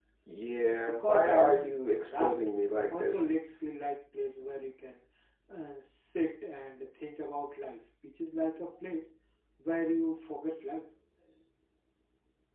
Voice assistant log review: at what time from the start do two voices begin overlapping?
0.8 s

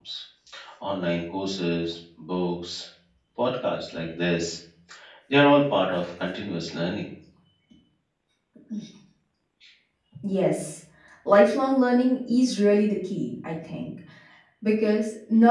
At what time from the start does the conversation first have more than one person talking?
none

